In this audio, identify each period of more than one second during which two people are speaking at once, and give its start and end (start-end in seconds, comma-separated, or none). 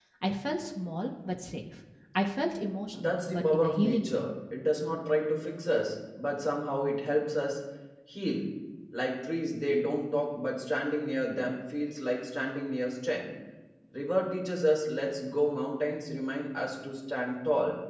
2.9-4.3